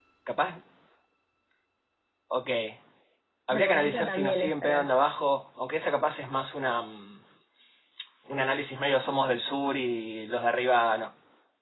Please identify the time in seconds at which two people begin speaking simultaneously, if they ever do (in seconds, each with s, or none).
3.5 s